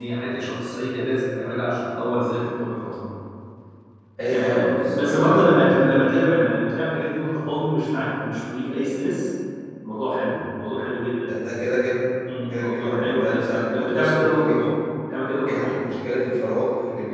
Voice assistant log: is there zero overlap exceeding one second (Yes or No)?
No